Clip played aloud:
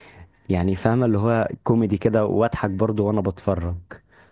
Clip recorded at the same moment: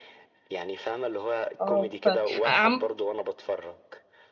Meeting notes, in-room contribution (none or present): present